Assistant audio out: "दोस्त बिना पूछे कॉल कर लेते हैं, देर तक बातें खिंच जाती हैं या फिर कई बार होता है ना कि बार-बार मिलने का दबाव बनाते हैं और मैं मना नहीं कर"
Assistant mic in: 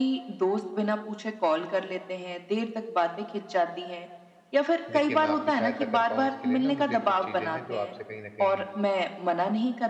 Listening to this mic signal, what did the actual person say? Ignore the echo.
देखिए, मैं आपकी सहायता कर पाऊँ इसके लिए ना मुझे कुछ चीज़ें हैं जो आपसे कहीं न कहीं

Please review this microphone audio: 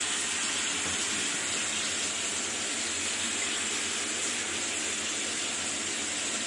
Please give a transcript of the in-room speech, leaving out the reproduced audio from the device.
none

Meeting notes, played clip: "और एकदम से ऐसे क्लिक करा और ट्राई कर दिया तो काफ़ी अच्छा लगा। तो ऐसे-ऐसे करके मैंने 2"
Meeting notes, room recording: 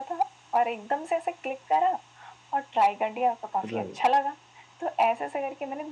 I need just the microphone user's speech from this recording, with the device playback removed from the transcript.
राइट,

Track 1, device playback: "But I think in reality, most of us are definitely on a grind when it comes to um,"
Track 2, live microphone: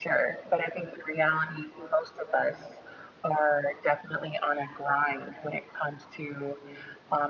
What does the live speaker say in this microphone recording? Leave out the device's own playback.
none

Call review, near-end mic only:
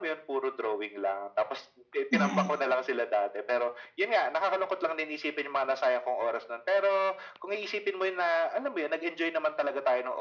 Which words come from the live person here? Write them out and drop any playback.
mm,

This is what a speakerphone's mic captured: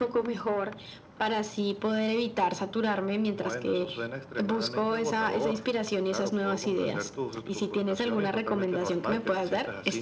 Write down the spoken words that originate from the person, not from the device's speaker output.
none

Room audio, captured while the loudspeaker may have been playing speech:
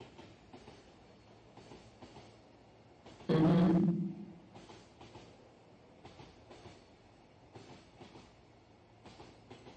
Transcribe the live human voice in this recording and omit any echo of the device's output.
Mhm.

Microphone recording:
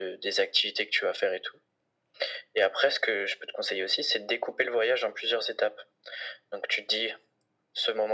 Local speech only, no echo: none

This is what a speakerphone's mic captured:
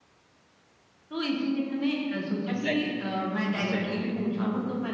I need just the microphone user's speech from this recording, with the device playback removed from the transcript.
एग्ज़ैक्टली, एग्ज़ैक्टली हाँ,

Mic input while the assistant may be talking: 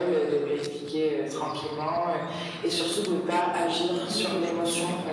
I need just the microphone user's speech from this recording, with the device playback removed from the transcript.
Oui, aussi.

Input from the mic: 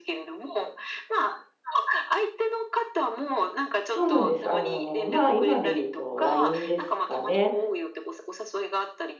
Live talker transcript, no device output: そうなんです。あの、まあ、今で言うと LINE ですかね。

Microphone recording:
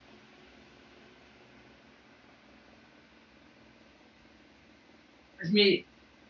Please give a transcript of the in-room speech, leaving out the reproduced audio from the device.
Pues mi

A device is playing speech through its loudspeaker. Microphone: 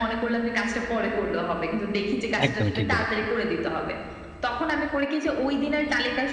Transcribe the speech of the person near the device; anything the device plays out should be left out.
একদমই ঠিক বলেছেন।

